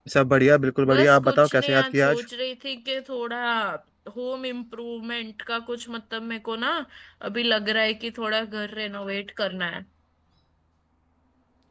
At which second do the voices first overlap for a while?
0.9 s

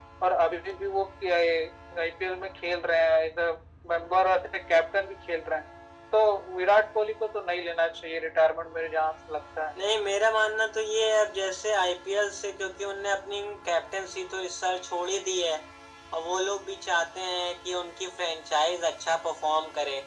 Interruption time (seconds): none

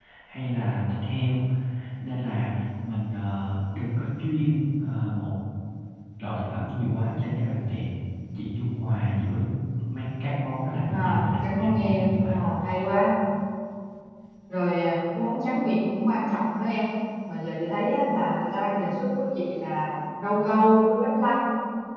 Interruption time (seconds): 10.9 s

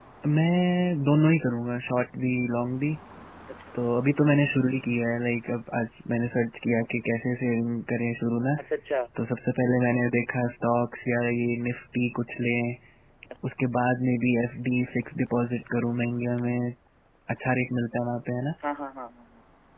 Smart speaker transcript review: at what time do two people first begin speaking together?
none

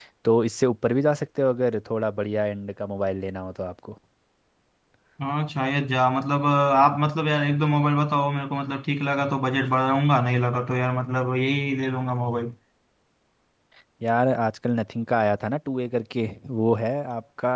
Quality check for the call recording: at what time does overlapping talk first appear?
none

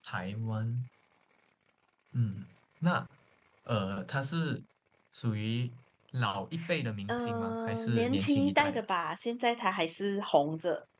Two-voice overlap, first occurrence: 7.1 s

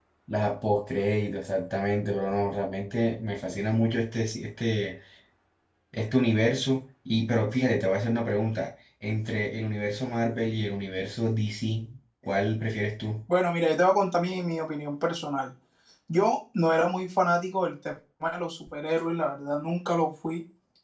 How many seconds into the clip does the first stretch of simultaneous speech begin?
none

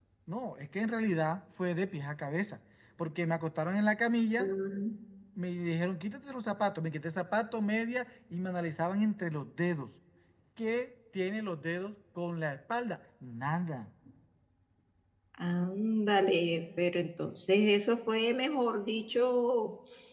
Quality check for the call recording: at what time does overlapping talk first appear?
none

